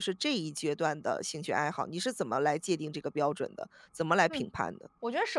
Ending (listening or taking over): taking over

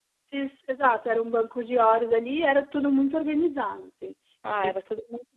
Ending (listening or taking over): taking over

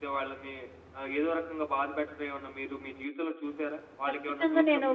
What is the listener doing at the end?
taking over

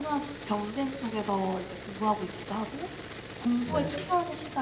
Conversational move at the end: listening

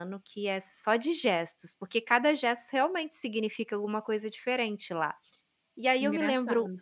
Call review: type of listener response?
listening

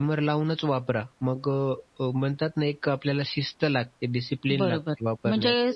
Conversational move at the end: taking over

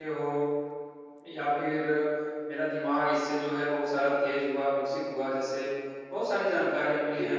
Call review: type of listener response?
listening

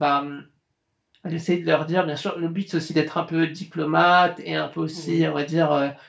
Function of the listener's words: listening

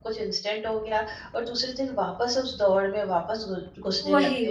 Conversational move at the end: listening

